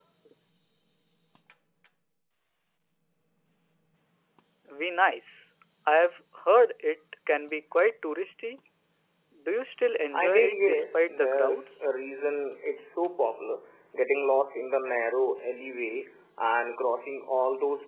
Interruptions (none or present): present